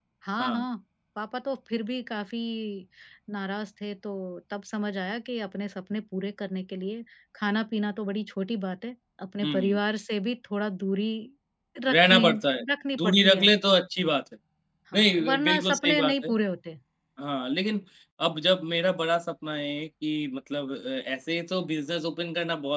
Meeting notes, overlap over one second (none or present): present